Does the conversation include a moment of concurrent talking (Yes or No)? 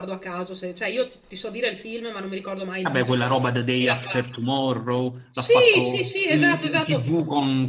Yes